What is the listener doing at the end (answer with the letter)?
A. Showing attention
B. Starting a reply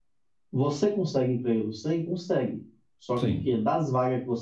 A